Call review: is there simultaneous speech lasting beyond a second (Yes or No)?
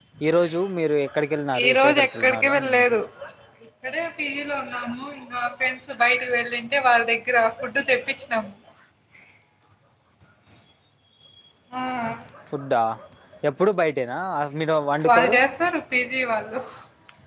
Yes